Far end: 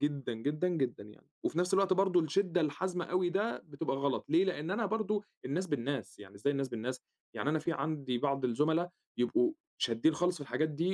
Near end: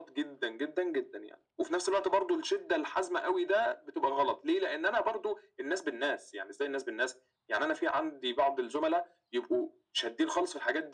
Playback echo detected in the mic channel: Yes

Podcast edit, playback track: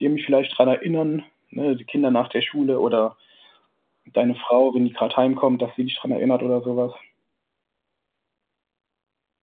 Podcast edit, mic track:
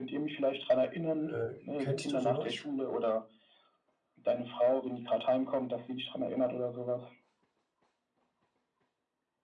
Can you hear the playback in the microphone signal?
Yes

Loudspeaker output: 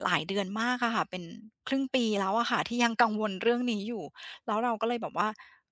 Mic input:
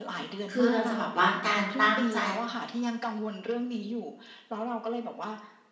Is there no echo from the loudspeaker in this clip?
No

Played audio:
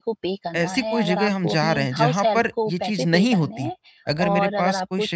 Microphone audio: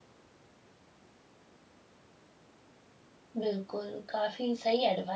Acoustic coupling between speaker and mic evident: No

